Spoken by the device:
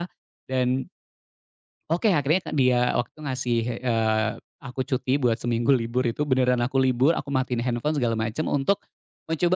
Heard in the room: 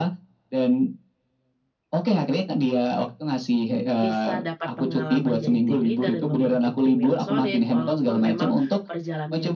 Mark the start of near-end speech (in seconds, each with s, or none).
4.0 s